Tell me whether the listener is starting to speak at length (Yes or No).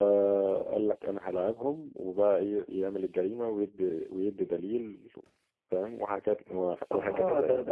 Yes